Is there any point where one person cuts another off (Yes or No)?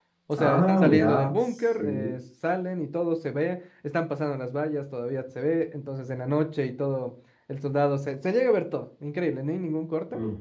Yes